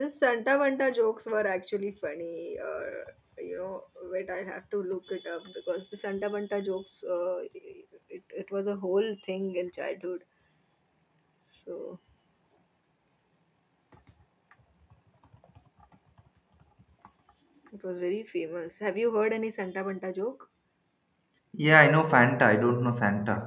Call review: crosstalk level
none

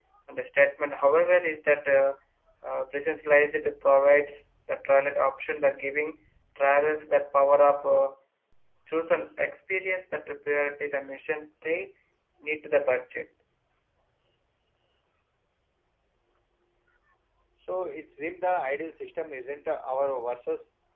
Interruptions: none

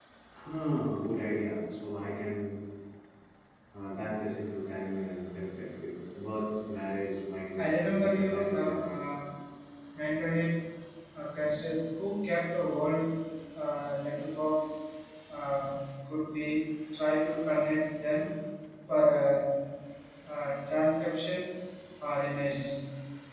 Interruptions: present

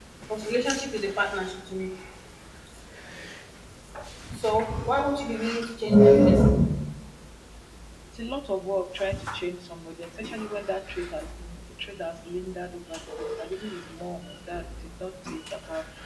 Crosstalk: none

